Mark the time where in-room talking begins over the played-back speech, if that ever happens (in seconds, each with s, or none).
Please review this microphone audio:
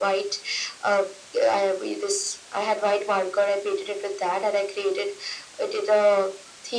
none